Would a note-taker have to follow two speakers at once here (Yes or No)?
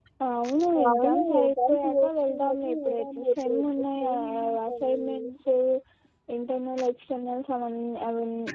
Yes